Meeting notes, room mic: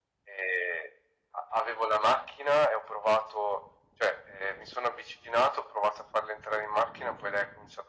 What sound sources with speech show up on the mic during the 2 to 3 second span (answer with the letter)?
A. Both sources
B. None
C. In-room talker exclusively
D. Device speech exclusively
D